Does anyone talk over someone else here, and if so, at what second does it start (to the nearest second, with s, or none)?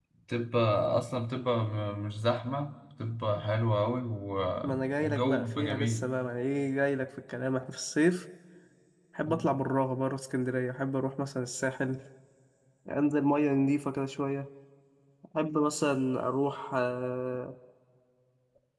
5 s